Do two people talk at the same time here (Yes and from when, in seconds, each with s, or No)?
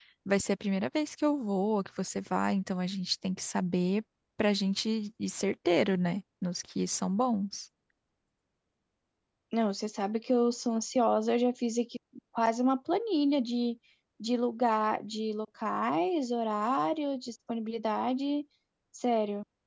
No